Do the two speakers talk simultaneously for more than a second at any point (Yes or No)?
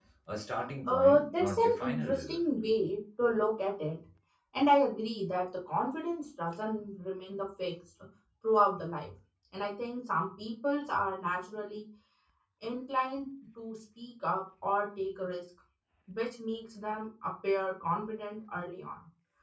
Yes